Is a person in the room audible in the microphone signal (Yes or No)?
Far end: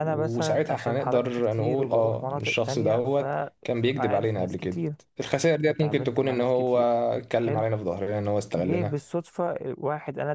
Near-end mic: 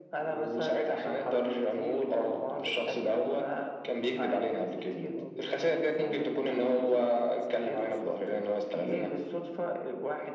Yes